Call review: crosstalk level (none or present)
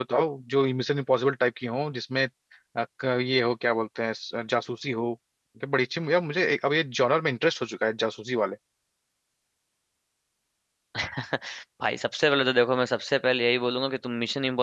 none